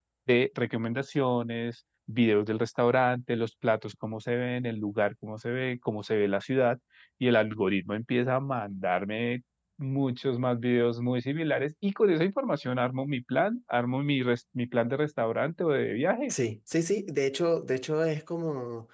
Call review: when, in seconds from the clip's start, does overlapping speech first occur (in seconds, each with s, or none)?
none